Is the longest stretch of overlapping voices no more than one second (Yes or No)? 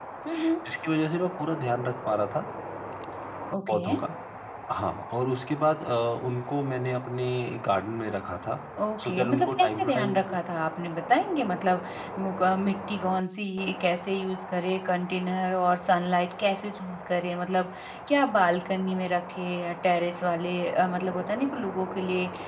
No